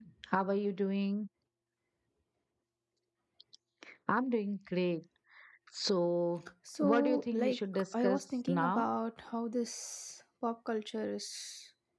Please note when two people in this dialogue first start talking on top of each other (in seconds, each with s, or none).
6.7 s